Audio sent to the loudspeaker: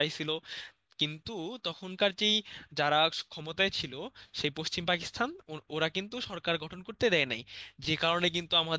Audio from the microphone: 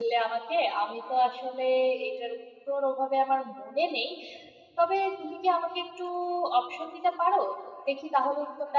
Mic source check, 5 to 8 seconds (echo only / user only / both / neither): user only